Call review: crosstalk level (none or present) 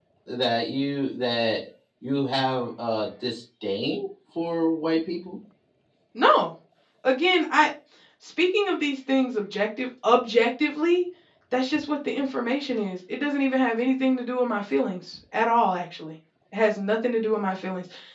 none